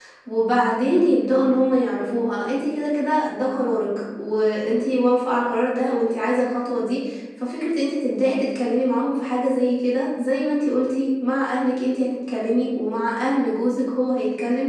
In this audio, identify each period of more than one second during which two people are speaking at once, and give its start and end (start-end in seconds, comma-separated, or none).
none